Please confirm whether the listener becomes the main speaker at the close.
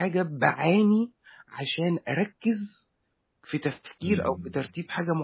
No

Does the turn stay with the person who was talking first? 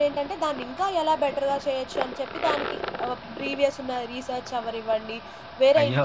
Yes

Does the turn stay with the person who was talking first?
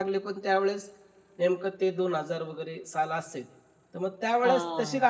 Yes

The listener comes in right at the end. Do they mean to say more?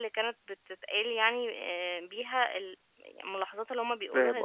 Yes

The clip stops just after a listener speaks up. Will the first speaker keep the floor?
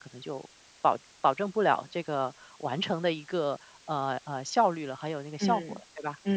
No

